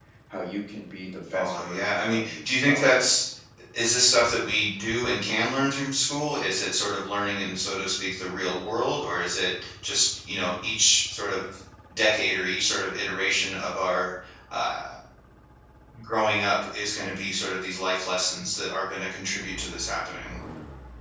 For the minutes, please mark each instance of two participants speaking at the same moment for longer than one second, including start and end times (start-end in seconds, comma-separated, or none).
1.3-2.9